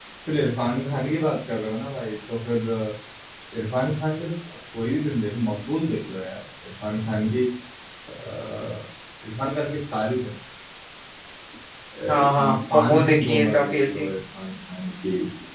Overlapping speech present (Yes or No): Yes